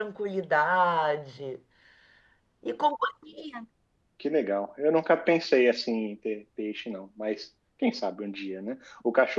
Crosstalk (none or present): none